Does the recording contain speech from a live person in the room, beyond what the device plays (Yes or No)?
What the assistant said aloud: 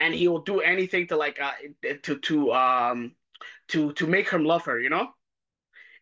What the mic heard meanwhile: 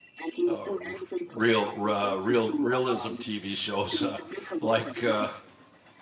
Yes